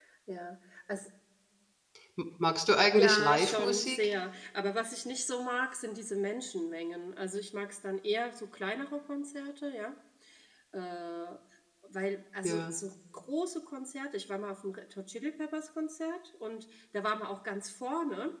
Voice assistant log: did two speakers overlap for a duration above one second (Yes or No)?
Yes